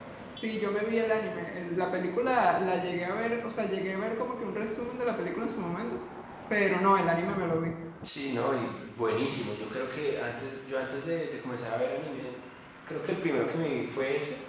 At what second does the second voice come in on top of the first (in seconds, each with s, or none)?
none